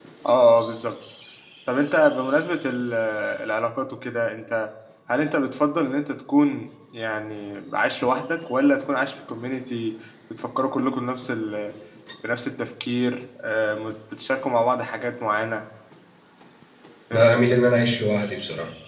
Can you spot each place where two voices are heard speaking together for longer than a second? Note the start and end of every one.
none

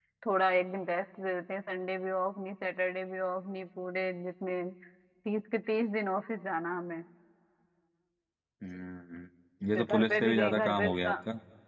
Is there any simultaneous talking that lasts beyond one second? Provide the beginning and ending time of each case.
9.7-11.1

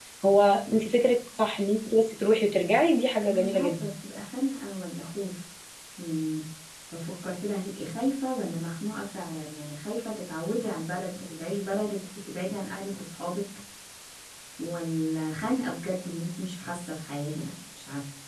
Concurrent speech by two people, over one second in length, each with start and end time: none

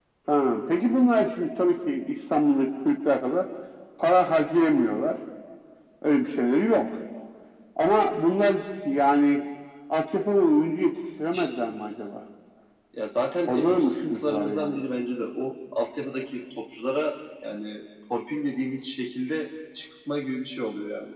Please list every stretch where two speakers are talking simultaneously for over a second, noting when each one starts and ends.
13.5-14.8

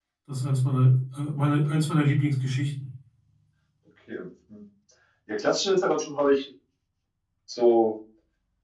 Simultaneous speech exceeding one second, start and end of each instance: none

